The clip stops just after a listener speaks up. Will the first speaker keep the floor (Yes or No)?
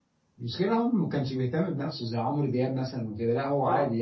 No